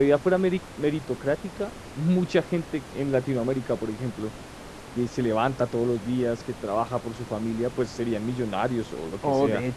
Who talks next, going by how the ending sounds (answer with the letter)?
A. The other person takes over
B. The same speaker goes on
A